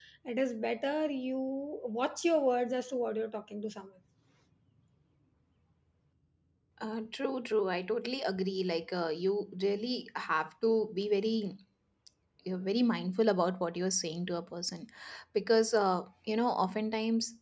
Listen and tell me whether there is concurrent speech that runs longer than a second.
No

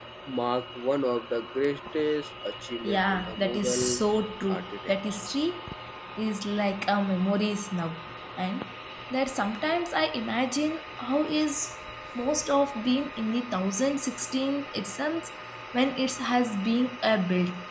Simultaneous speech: Yes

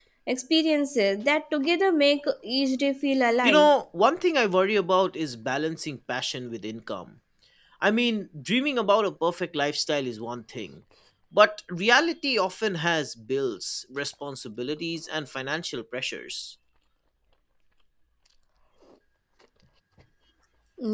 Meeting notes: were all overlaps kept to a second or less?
Yes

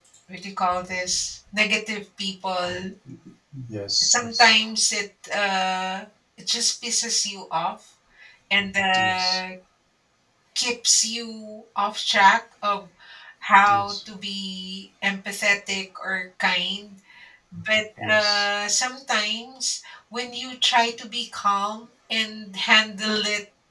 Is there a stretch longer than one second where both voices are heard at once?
No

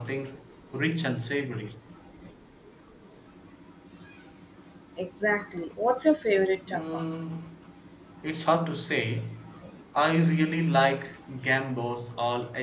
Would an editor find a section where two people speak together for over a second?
No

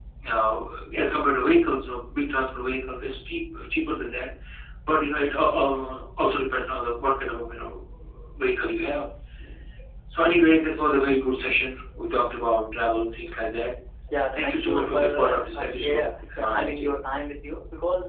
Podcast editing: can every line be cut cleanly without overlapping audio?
No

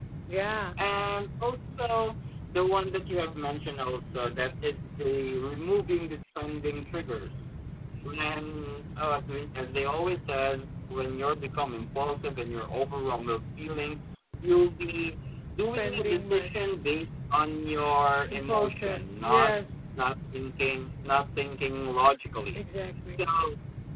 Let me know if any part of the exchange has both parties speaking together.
Yes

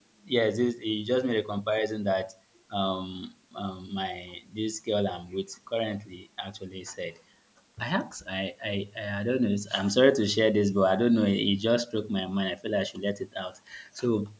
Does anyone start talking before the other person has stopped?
No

